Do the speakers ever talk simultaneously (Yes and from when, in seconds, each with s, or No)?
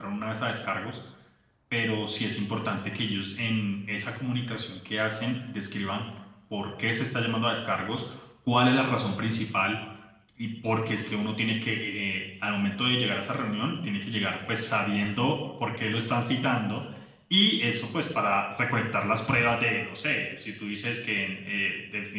No